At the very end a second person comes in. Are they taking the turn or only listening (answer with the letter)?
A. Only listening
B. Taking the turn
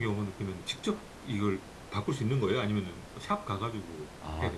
B